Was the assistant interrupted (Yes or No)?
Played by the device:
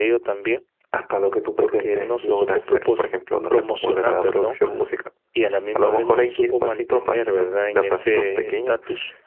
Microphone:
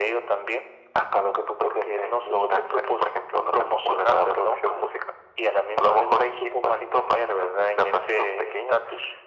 No